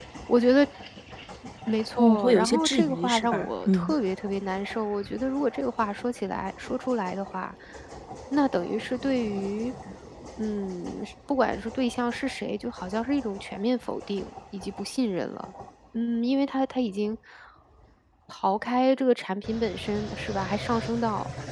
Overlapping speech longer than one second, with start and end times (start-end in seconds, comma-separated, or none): 2.0-3.9